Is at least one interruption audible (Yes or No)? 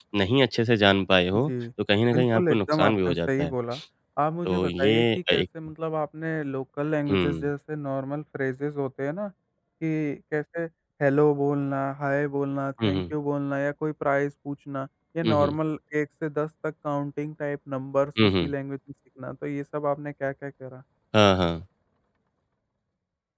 Yes